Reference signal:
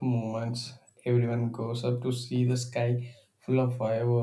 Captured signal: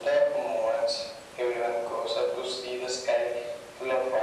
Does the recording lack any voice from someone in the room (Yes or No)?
Yes